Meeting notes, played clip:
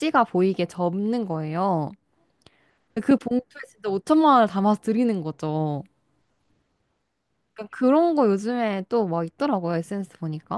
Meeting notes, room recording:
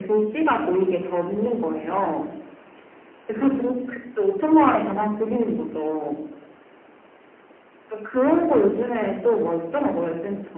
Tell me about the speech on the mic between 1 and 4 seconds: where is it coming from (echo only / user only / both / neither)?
echo only